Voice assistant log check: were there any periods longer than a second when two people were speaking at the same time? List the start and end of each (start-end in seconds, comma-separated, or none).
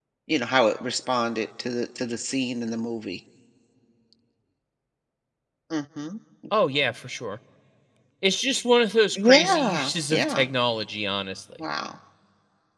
9.2-10.4